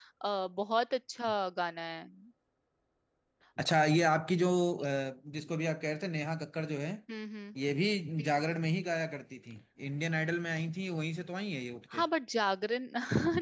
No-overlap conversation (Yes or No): Yes